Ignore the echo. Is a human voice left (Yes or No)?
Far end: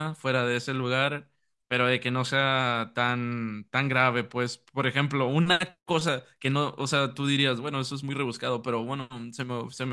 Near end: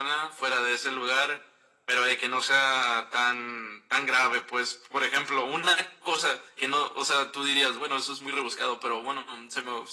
No